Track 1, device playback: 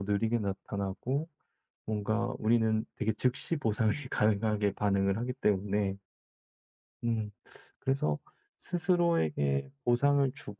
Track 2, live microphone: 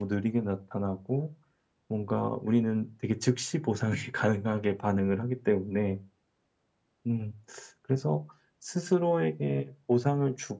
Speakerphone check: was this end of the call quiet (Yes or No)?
Yes